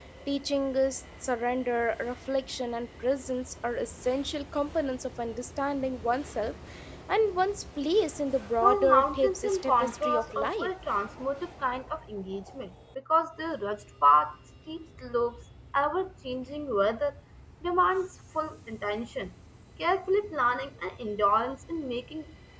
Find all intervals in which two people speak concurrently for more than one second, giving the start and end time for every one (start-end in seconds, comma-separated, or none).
8.6-10.7